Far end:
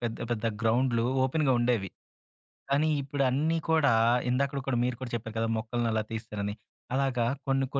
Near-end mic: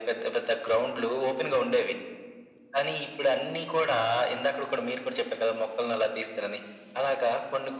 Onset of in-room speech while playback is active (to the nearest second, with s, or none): none